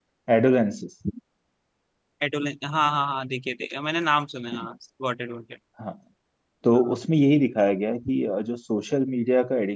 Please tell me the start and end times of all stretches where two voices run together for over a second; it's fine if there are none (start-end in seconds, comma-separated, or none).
none